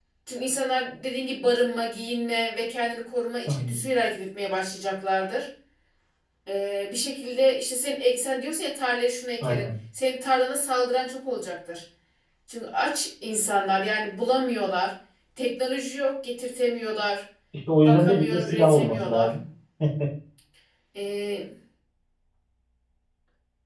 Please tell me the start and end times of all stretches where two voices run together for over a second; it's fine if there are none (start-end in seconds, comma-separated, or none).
17.9-19.3